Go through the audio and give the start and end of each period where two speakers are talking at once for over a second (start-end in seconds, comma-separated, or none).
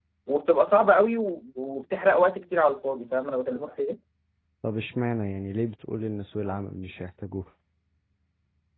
none